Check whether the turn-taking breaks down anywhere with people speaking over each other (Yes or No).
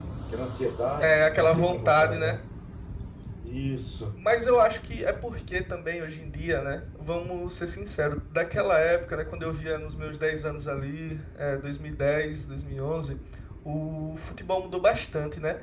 Yes